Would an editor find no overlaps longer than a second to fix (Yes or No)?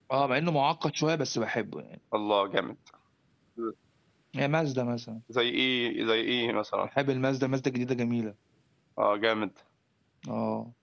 Yes